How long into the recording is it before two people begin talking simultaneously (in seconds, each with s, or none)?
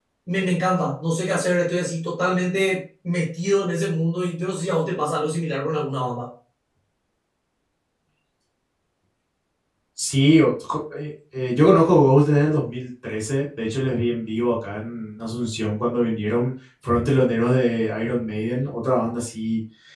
none